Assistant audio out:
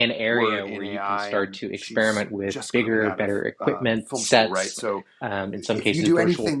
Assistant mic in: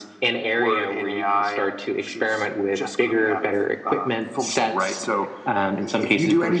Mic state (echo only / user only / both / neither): echo only